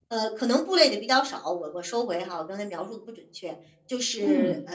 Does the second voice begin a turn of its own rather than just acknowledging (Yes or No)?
No